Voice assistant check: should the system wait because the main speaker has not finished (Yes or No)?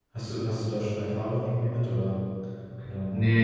No